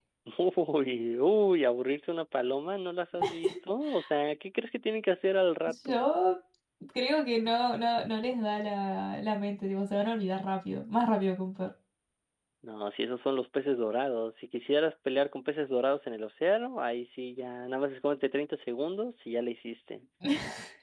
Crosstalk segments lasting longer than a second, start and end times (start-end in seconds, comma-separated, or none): none